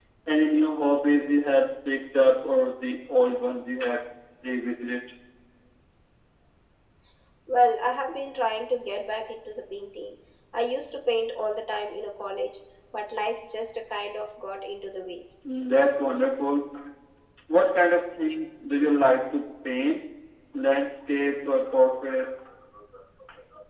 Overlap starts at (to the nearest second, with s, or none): none